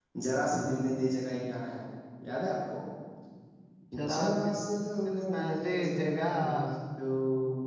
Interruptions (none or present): present